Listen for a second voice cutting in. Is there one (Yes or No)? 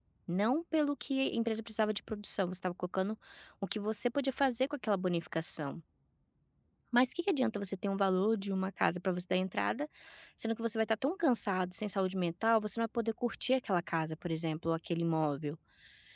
No